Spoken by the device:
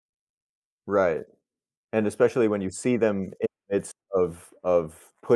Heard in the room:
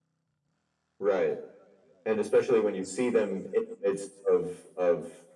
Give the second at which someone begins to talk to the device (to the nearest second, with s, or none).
none